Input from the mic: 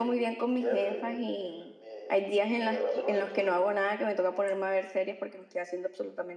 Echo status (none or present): present